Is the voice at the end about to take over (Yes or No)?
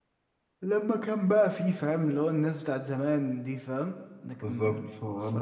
Yes